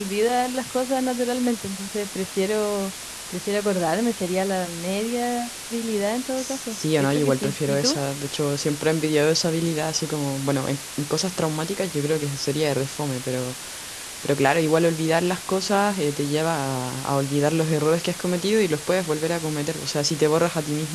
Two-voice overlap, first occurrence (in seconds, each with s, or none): 6.4 s